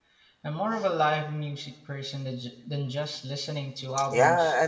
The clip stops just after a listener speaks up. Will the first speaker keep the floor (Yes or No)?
No